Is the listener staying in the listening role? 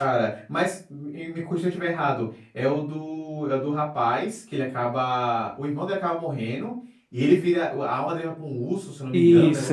No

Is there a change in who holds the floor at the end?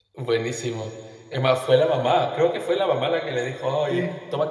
No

